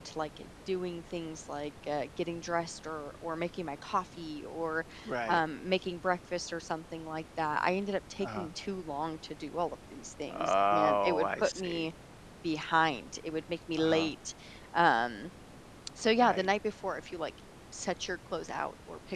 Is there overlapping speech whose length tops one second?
Yes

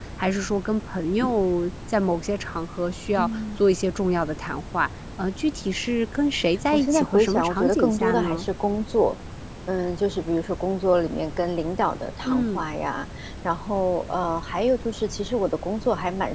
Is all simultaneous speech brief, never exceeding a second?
No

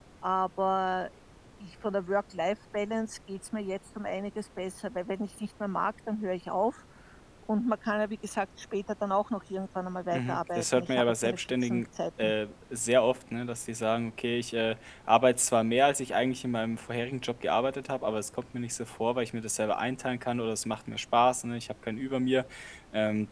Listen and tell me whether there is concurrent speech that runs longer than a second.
Yes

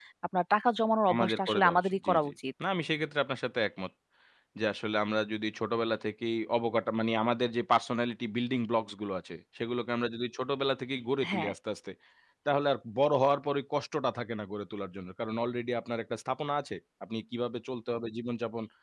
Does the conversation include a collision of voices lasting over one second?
Yes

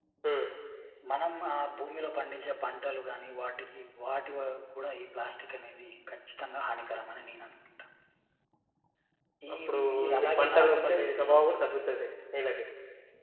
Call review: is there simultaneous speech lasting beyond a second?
Yes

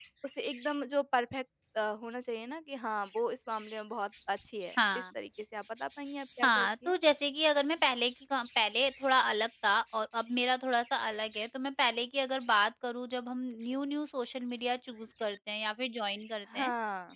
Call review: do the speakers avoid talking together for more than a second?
Yes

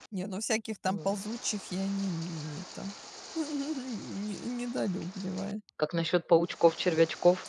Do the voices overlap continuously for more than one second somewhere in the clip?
No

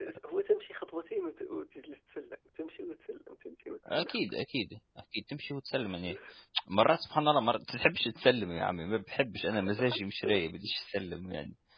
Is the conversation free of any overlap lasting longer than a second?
Yes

